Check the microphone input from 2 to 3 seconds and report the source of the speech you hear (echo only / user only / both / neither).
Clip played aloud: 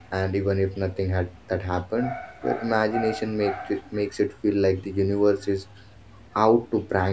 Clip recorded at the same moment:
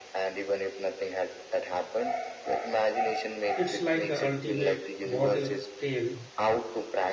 echo only